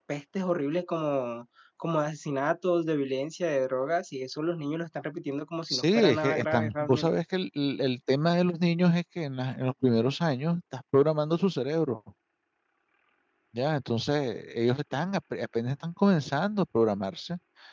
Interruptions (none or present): present